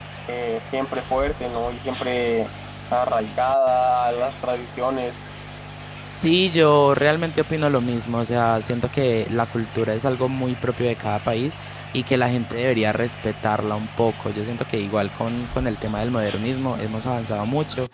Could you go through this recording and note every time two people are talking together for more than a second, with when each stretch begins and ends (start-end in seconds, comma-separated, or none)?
none